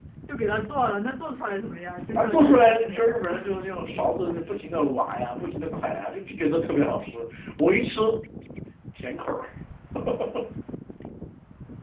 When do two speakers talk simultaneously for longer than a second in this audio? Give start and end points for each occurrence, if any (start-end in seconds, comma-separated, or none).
2.2-3.5